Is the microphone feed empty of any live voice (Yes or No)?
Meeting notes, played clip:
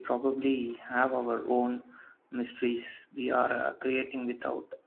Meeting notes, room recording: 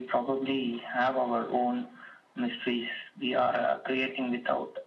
Yes